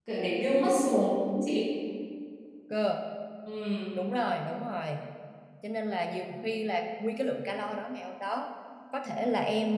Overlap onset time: none

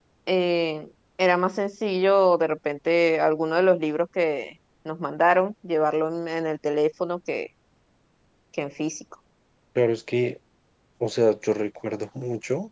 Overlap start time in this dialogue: none

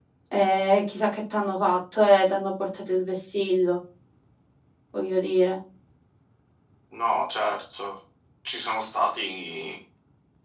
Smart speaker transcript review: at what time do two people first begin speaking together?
none

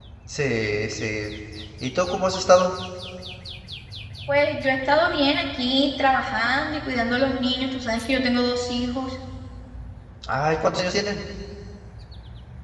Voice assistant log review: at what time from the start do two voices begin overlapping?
none

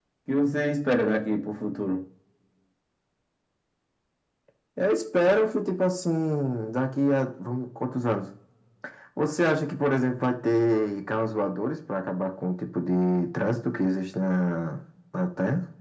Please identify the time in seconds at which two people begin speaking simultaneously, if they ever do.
none

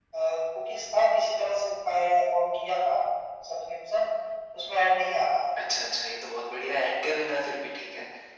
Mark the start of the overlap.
none

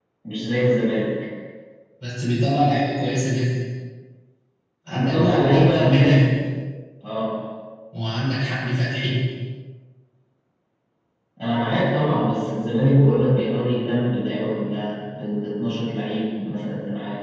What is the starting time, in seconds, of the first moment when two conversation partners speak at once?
4.9 s

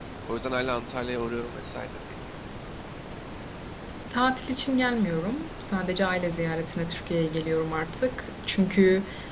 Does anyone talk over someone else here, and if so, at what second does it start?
none

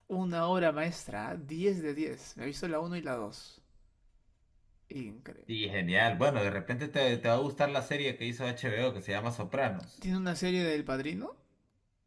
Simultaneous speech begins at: none

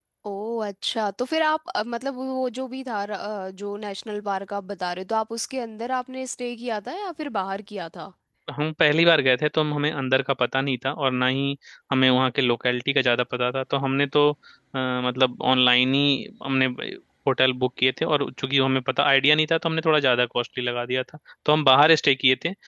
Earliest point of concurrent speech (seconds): none

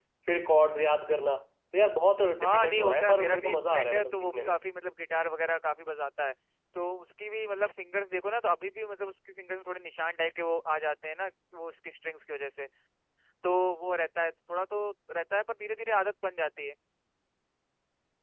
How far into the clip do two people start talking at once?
2.4 s

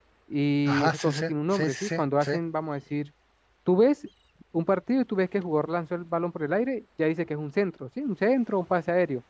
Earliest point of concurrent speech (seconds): 0.7 s

